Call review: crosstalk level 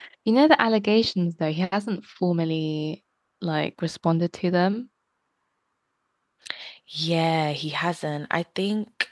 none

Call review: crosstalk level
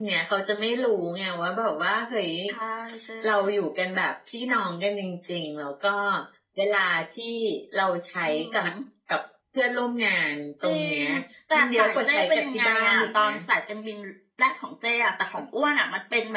present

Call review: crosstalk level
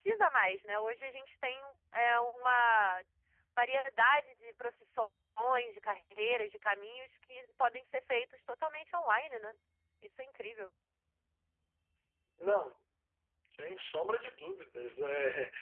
none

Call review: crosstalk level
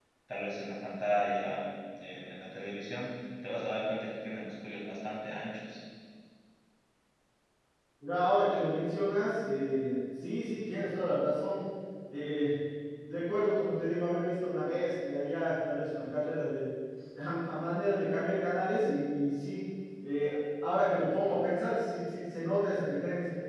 none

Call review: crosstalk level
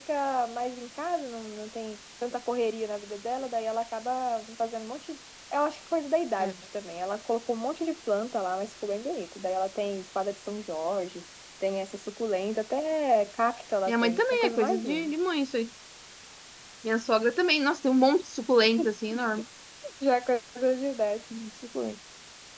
present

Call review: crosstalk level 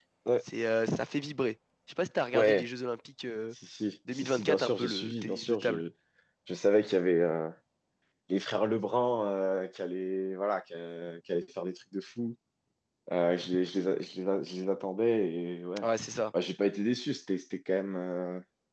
present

